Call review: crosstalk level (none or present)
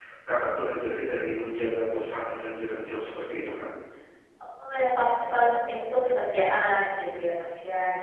none